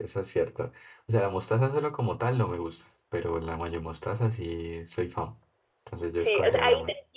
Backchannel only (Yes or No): No